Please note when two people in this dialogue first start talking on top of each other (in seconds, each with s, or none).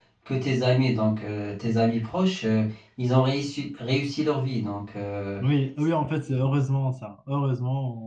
none